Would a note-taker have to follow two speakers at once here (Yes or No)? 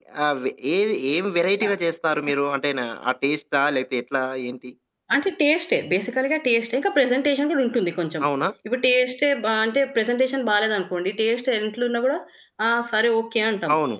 No